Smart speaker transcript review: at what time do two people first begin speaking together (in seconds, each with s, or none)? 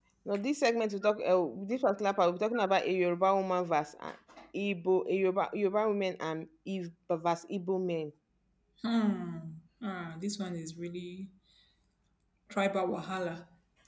none